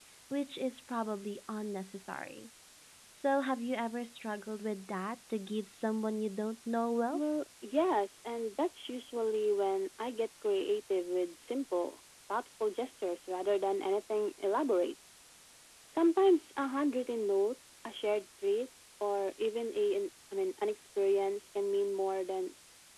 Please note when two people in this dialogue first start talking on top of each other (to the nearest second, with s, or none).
none